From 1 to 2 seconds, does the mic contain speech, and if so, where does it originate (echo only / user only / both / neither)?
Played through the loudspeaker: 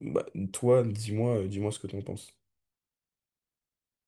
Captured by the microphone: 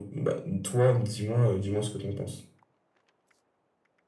echo only